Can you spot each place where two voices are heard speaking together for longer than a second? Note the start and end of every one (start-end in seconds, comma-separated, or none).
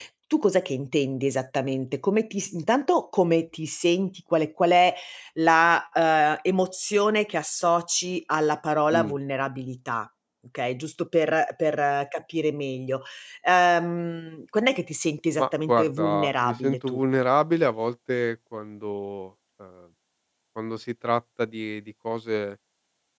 15.4-17.0